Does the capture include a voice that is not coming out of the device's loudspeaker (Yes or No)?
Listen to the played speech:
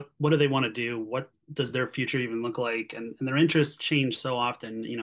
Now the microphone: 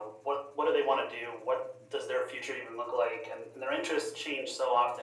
No